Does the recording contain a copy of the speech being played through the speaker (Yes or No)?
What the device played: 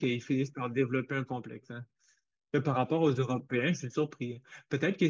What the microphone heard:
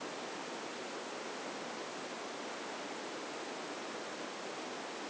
No